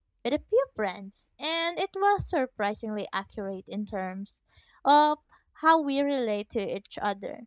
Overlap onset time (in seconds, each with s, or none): none